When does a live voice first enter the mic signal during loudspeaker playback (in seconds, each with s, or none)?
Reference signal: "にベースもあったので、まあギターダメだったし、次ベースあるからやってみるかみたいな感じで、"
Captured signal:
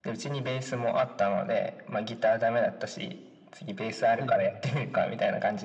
4.1 s